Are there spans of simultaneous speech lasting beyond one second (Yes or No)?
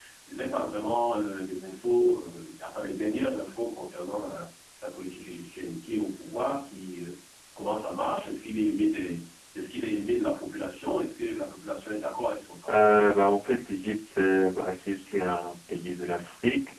No